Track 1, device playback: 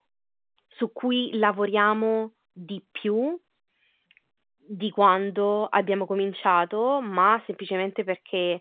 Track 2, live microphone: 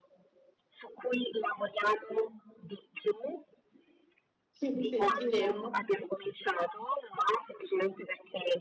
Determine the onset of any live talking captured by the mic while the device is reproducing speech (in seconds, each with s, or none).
4.7 s